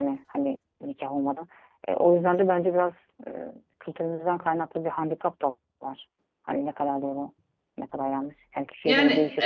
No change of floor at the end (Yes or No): No